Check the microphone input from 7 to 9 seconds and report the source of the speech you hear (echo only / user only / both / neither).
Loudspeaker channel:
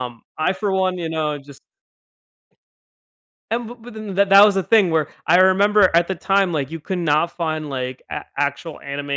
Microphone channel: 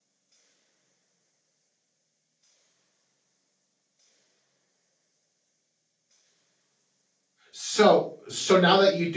user only